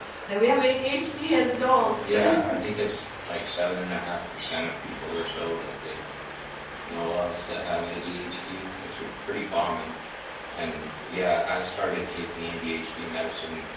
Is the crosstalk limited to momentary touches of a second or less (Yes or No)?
Yes